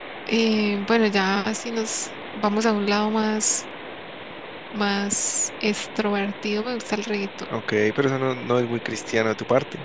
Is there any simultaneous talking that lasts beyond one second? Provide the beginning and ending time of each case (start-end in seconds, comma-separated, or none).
none